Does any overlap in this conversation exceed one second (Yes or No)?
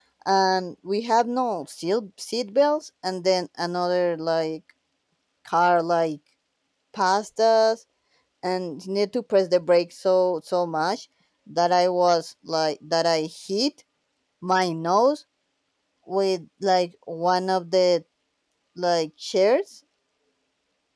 No